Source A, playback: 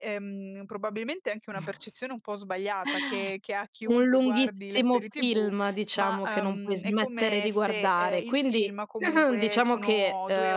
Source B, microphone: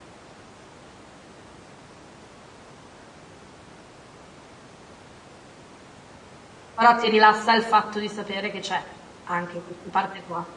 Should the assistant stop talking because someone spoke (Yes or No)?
Yes